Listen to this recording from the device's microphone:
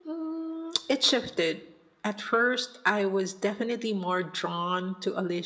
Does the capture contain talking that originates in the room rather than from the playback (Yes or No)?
No